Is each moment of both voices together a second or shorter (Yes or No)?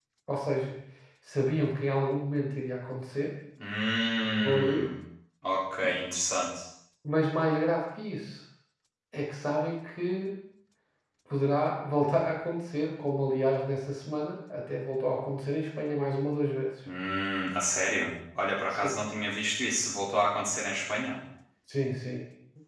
Yes